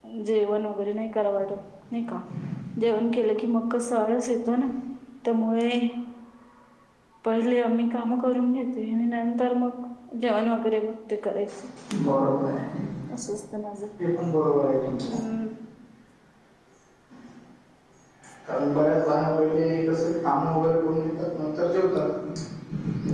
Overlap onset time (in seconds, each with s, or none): none